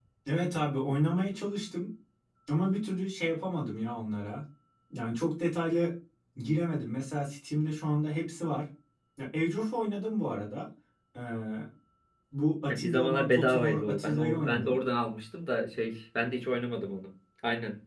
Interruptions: present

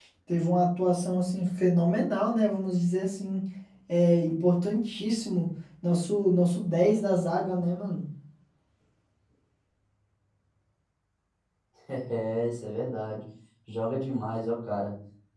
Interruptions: none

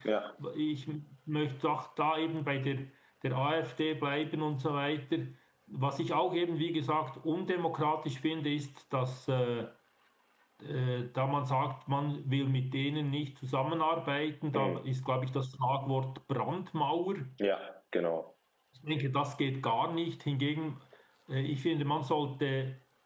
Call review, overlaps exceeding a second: none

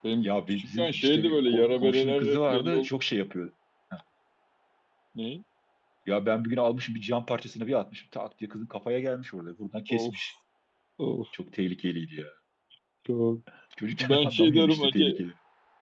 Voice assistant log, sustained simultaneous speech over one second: present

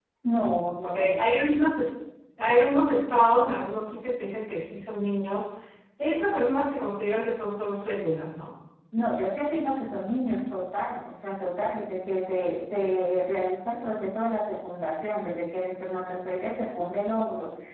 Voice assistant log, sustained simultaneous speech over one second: none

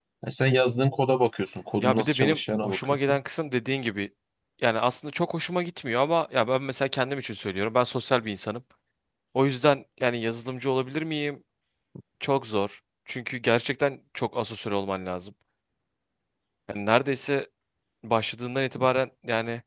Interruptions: present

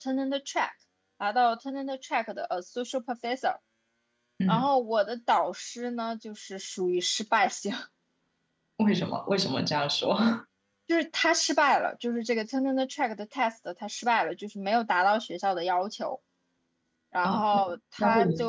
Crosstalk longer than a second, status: present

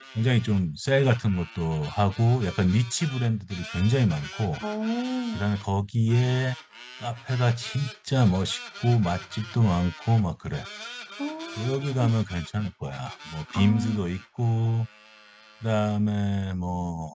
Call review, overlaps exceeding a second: none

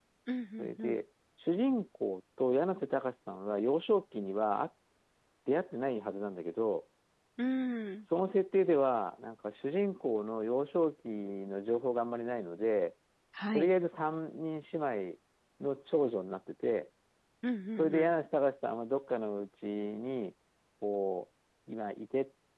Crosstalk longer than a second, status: none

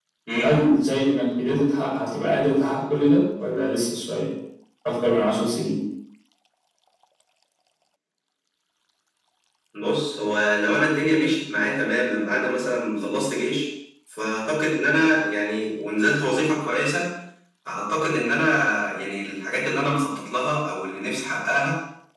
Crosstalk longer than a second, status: none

